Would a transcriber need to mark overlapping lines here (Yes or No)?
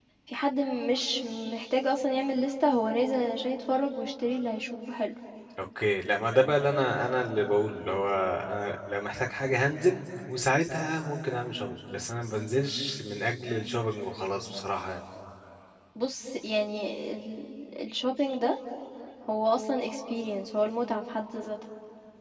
No